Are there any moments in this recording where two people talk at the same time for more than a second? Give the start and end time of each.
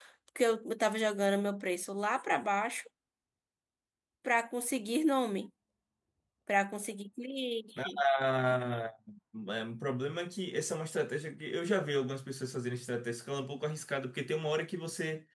none

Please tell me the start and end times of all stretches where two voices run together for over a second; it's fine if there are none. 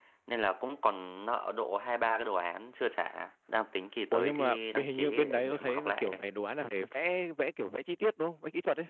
4.1-6.2

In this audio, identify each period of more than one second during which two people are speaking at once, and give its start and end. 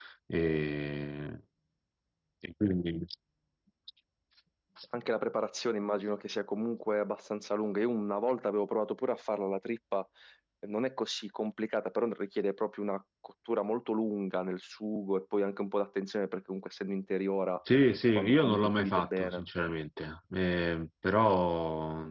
18.2-19.4

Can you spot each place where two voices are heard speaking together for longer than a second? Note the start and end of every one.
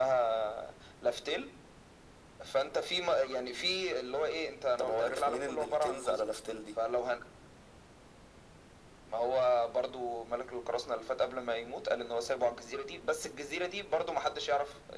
4.8-6.2

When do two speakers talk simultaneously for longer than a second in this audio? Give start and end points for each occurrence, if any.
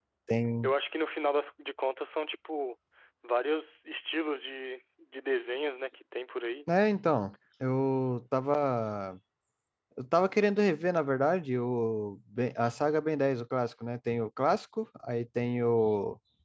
none

